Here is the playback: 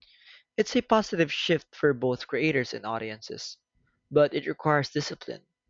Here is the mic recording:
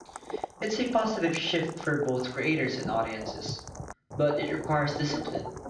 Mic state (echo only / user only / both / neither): echo only